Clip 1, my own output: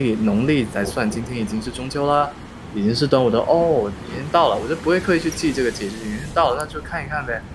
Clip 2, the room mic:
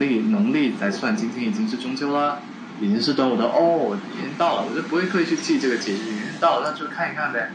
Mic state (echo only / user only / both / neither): echo only